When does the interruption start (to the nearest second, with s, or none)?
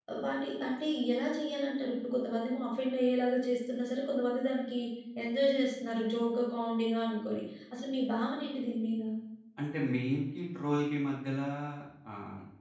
none